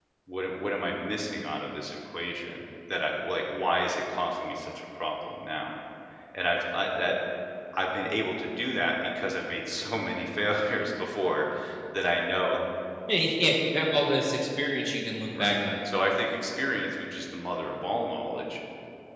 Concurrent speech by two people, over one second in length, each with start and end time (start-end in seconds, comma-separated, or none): none